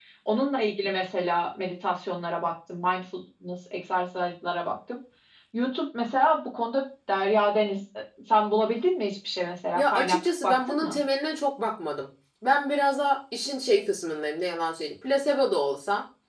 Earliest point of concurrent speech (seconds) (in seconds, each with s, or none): 9.7 s